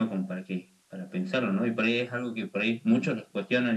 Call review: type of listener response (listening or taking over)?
listening